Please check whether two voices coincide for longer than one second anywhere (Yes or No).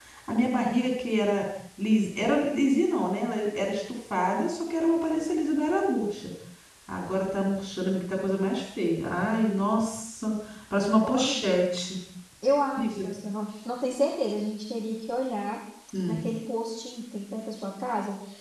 No